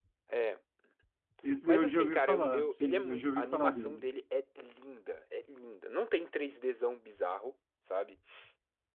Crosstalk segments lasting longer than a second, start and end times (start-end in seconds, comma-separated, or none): 1.7-4.1